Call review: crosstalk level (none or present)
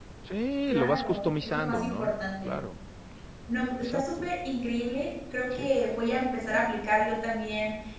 present